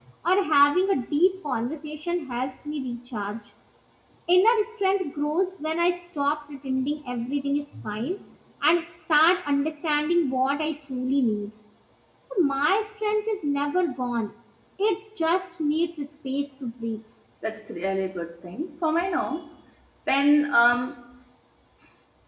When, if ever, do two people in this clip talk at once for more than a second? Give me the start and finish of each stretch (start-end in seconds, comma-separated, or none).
none